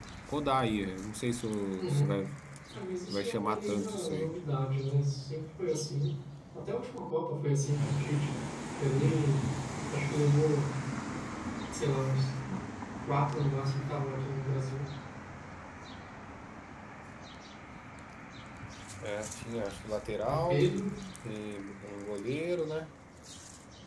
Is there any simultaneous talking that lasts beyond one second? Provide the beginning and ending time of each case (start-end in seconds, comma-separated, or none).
2.8-4.3